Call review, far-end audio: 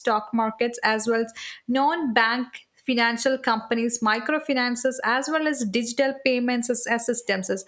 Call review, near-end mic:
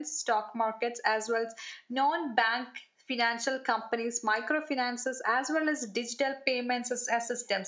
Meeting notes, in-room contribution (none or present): none